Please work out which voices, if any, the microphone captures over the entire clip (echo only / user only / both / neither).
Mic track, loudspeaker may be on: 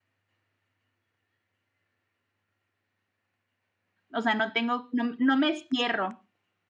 user only